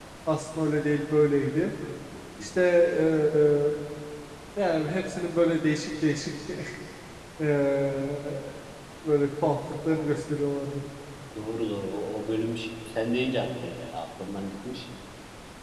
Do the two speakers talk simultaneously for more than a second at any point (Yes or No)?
No